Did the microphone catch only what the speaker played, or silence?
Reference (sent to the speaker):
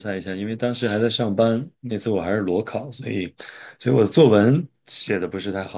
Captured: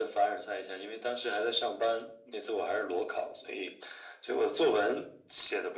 Yes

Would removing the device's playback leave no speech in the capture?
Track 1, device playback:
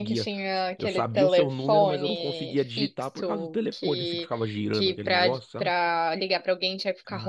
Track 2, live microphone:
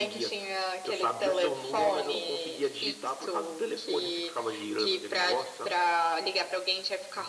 Yes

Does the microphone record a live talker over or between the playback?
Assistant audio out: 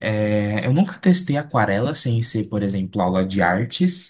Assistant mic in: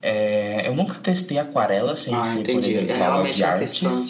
Yes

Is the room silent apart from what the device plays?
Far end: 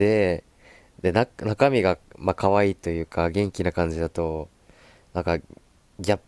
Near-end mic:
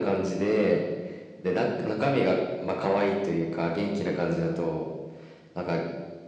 Yes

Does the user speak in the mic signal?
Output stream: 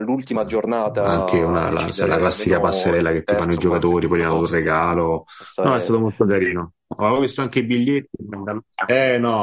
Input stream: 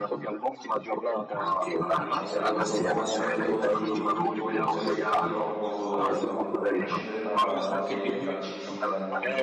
Yes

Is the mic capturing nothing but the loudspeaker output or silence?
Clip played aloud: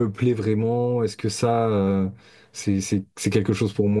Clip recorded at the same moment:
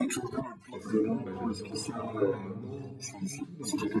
No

